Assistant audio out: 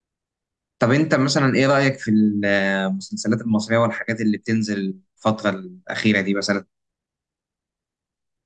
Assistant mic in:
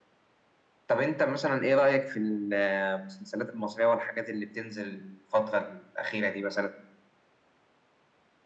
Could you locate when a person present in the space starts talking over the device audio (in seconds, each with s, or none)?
none